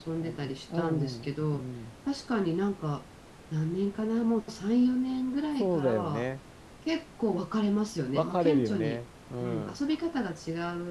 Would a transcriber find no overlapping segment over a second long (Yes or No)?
No